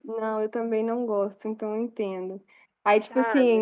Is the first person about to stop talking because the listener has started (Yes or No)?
No